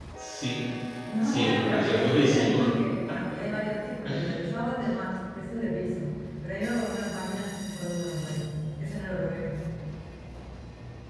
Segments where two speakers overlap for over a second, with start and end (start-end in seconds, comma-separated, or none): 1.2-2.6